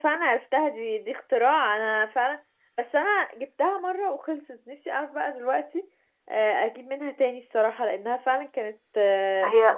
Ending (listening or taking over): taking over